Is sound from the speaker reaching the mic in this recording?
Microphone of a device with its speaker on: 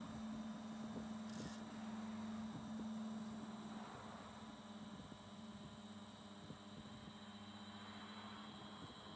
No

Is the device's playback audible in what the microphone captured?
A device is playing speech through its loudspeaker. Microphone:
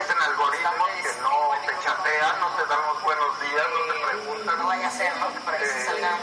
Yes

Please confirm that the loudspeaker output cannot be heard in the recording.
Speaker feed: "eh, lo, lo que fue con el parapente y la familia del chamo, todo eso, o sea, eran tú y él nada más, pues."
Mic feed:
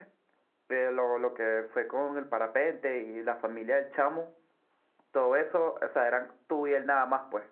No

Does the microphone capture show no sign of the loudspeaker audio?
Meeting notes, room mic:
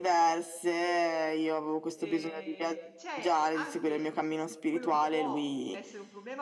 No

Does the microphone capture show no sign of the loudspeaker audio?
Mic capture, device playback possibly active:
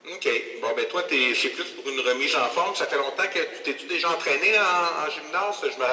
No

